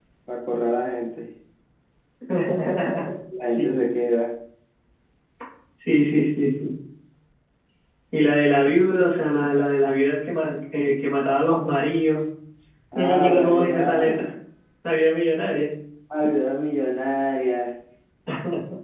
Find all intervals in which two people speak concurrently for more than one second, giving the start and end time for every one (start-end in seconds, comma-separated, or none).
12.9-14.3